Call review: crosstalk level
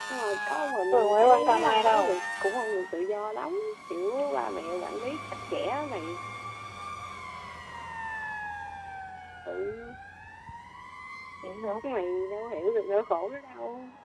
present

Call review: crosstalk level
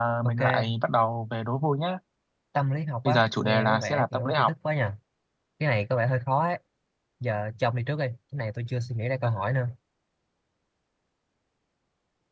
present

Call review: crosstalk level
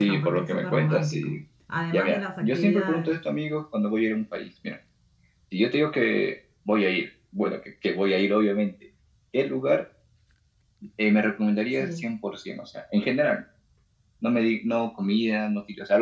present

